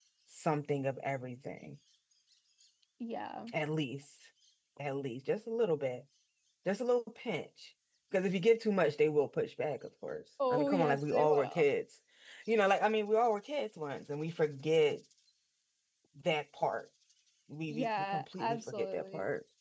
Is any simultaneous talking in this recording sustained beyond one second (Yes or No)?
Yes